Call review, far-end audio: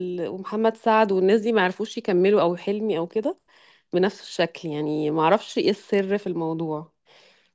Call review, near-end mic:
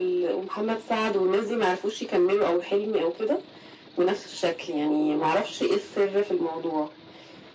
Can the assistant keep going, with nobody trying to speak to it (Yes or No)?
Yes